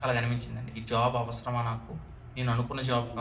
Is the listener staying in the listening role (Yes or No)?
Yes